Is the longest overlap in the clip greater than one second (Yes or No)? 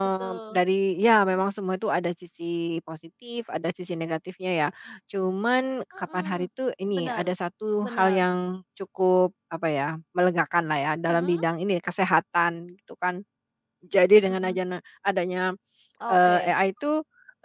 No